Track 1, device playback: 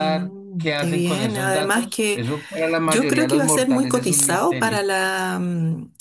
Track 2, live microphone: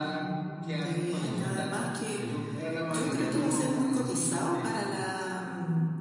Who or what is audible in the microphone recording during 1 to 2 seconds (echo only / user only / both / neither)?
echo only